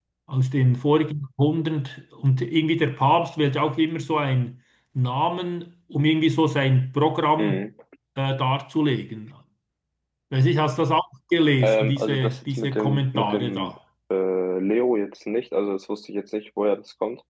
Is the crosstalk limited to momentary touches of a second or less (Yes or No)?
No